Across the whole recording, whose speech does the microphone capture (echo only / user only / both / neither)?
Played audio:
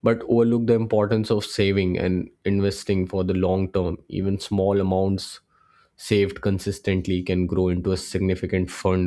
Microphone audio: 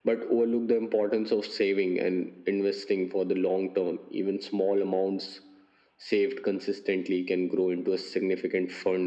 echo only